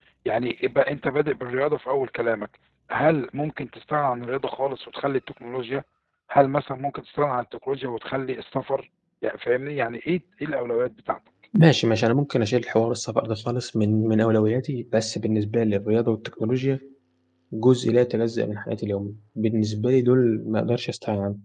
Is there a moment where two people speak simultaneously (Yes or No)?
No